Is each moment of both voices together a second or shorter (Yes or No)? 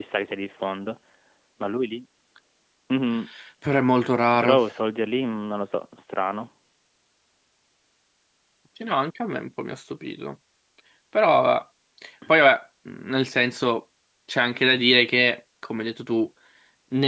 Yes